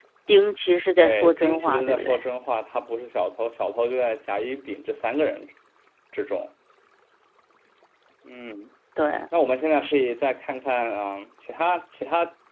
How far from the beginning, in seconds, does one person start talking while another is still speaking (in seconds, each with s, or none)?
1.0 s